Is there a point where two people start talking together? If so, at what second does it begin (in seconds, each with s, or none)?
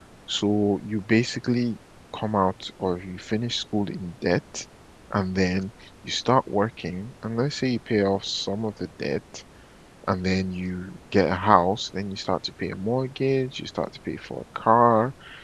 none